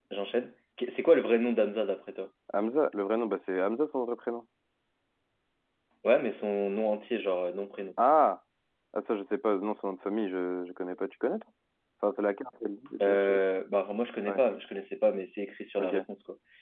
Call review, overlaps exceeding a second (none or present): none